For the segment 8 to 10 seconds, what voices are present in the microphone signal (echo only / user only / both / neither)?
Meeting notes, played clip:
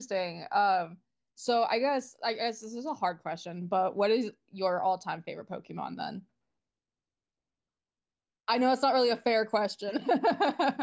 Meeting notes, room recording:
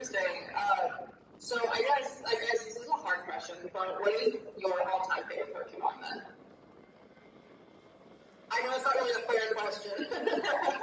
echo only